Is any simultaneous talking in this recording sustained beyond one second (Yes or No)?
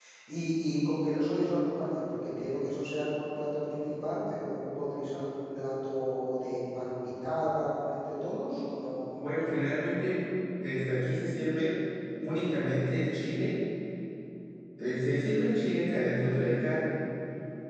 No